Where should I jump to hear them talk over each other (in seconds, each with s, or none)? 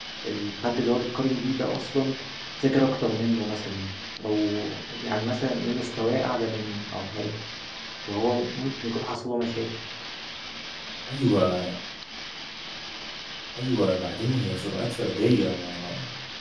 none